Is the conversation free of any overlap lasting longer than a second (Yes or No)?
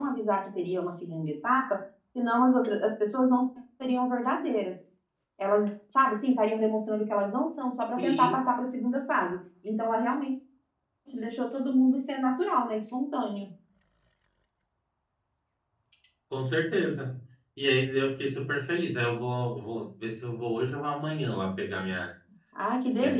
Yes